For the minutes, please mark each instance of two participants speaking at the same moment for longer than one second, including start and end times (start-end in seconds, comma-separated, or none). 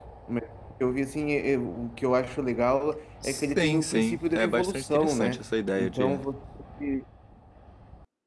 3.2-5.4